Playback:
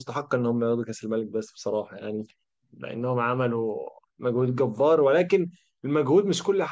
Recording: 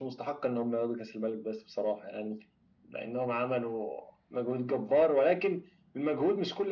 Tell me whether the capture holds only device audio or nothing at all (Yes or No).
Yes